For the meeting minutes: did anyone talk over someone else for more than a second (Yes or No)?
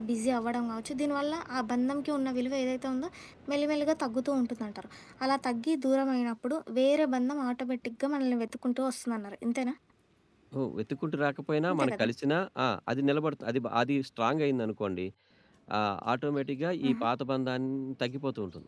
No